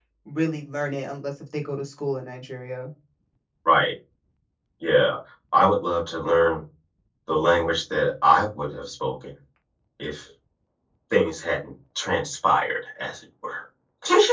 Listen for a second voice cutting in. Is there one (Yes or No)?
No